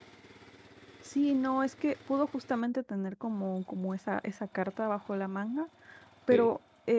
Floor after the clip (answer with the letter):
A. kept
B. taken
A